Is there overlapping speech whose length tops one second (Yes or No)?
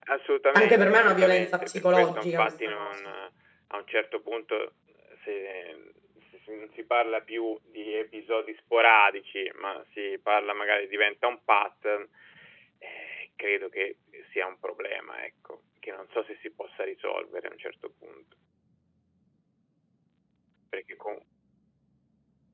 Yes